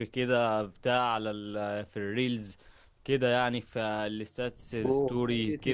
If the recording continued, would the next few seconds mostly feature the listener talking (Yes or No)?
Yes